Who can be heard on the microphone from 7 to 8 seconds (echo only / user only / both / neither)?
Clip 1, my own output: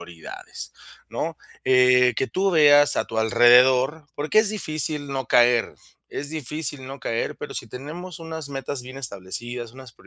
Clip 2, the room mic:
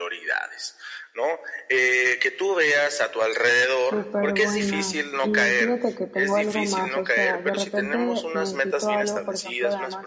both